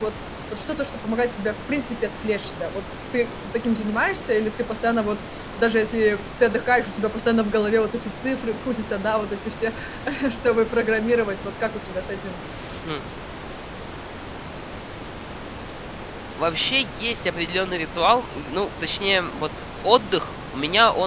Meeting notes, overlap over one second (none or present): none